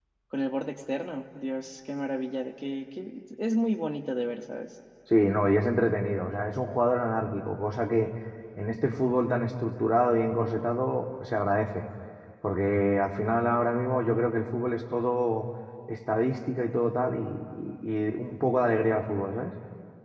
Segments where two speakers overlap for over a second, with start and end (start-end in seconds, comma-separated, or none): none